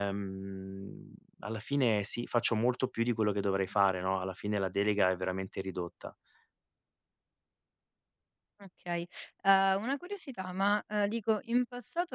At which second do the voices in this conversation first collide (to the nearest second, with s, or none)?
none